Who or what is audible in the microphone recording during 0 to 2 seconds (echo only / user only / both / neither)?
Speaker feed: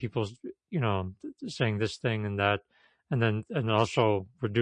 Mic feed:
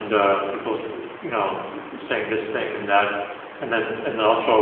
echo only